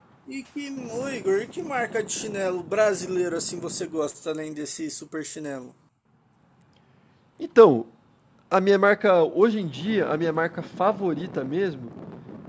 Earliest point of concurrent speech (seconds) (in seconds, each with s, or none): none